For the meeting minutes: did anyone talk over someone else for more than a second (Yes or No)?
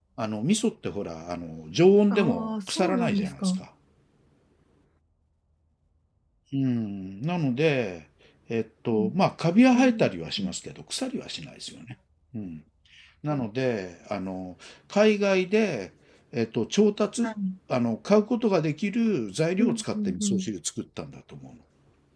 Yes